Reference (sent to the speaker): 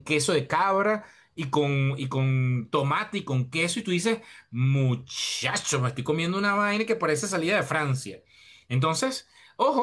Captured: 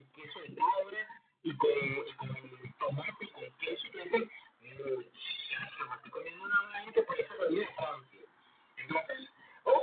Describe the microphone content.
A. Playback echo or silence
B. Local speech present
A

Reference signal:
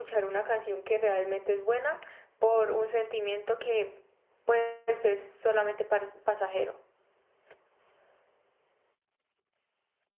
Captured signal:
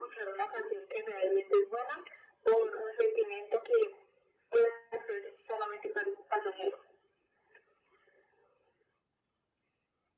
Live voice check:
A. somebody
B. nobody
B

